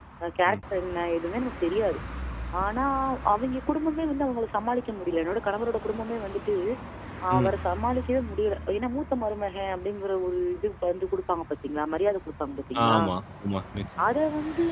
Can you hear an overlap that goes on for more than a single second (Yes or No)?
No